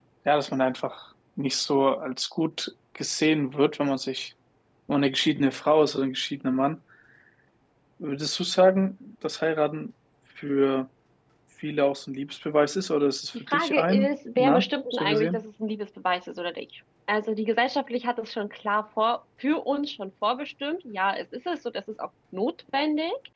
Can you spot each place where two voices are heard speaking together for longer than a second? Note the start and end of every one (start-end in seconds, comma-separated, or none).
13.5-15.4